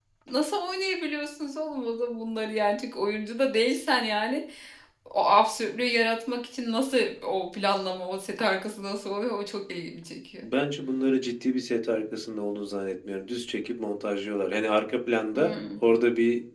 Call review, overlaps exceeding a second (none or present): none